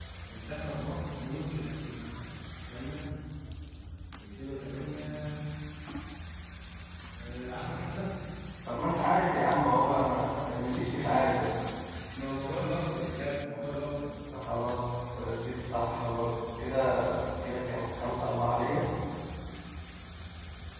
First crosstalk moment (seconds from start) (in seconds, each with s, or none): none